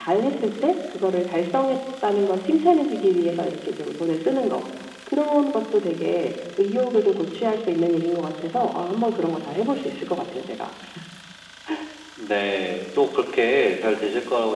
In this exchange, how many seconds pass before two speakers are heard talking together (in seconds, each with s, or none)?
none